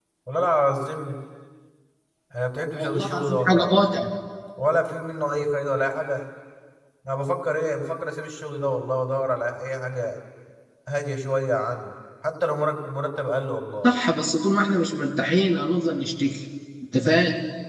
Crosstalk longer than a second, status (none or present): present